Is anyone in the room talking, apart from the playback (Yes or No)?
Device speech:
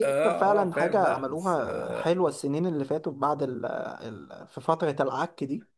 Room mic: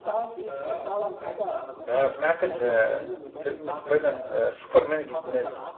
Yes